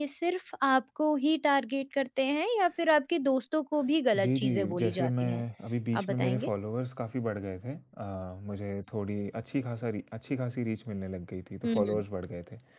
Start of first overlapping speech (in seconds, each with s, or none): 4.2 s